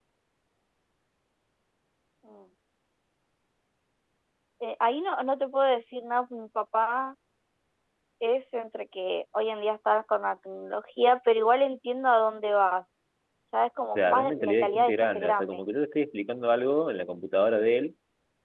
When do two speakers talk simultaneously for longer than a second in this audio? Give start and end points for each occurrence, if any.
13.9-15.6

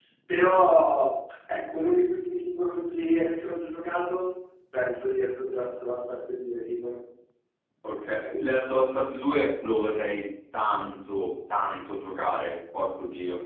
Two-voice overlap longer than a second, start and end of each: none

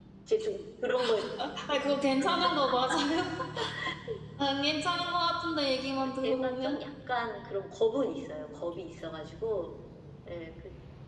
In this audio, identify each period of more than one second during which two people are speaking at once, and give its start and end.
none

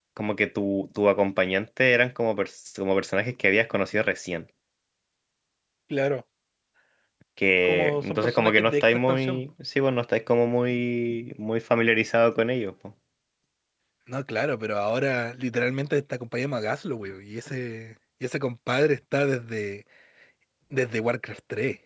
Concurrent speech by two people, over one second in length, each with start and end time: 7.6-9.4

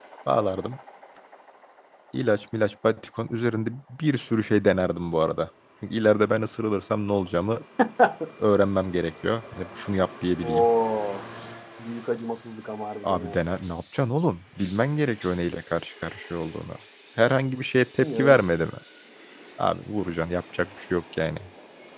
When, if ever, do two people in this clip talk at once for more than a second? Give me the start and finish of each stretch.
none

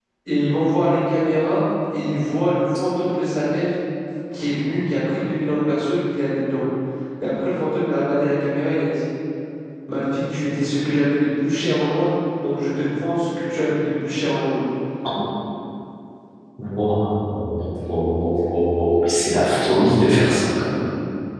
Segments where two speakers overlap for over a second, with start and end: none

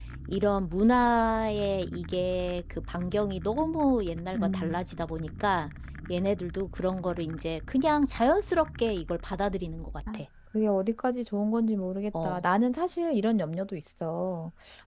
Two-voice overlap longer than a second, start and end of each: none

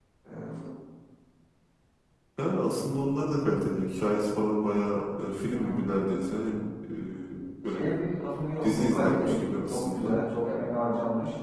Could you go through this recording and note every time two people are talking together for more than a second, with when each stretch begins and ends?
8.6-10.2

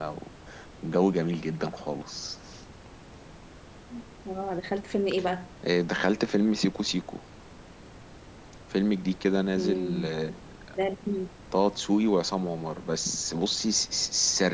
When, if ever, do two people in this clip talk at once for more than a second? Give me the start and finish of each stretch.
none

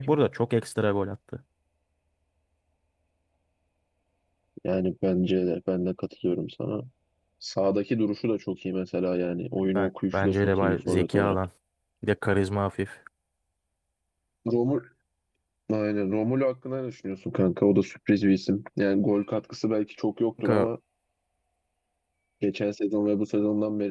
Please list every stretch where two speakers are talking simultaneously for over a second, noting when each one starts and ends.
9.8-11.4

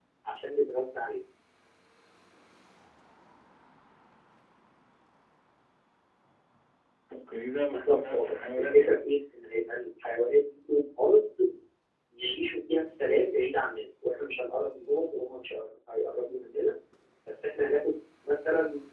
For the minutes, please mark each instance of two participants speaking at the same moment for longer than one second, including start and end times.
7.7-8.9

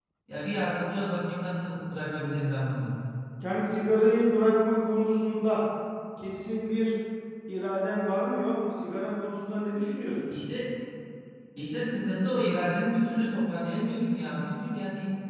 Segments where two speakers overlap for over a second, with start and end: none

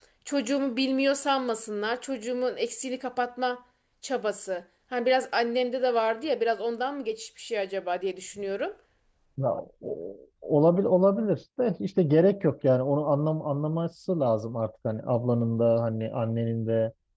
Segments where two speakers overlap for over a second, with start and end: none

